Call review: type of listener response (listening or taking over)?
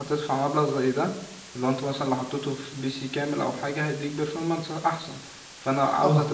listening